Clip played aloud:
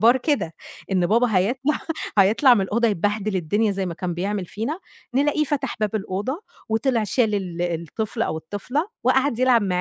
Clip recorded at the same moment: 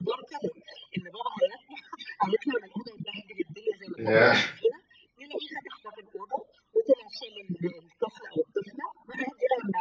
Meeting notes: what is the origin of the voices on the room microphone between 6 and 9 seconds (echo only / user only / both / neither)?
echo only